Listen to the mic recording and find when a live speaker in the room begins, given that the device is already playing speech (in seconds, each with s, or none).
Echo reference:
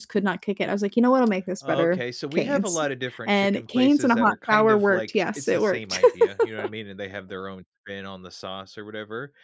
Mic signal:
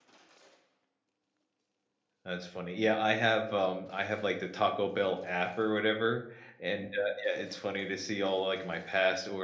2.2 s